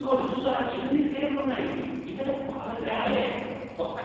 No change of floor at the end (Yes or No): Yes